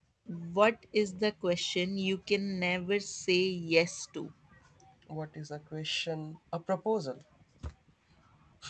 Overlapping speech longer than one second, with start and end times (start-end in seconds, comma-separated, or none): none